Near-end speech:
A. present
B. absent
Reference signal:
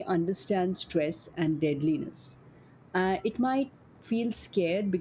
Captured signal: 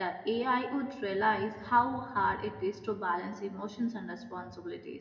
A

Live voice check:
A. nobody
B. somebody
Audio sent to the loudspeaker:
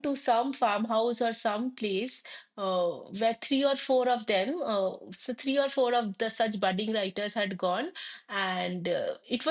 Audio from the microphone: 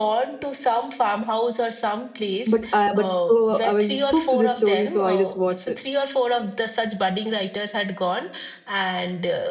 B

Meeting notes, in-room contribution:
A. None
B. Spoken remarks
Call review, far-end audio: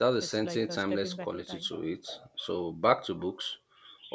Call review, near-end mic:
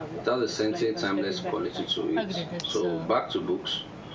B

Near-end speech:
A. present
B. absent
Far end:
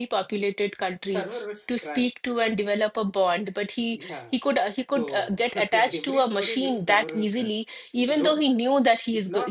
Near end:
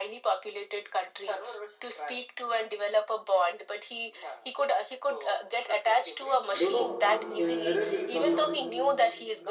A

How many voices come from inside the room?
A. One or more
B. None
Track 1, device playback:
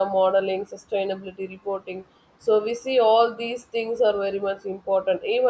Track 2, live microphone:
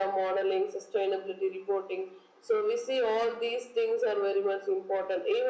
B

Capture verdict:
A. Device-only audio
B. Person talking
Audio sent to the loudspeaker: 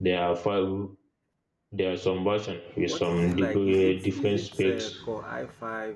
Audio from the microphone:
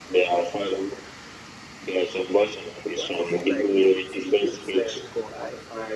A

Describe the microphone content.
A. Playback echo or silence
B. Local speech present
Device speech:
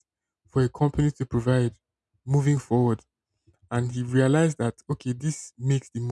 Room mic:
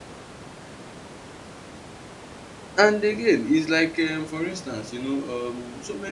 B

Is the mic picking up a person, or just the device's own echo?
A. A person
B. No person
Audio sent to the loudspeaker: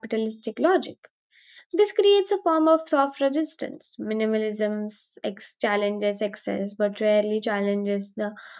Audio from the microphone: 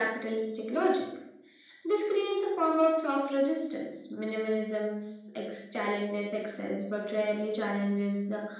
B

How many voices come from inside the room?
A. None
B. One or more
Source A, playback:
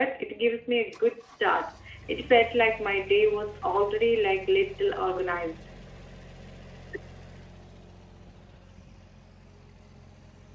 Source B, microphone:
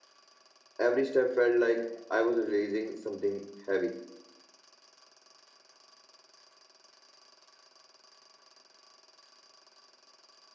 B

